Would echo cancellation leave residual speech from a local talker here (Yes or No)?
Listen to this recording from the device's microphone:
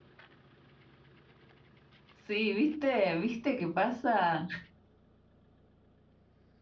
Yes